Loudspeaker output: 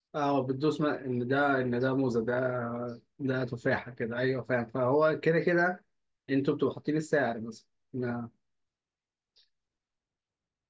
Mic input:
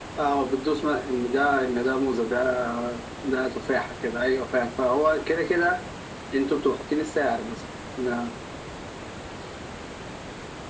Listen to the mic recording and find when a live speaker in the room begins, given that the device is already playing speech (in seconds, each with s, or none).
none